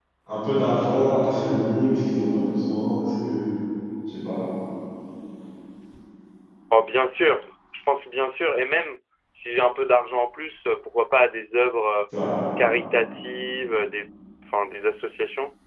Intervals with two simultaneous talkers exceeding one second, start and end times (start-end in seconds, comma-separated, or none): none